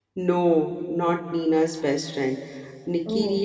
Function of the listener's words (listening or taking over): listening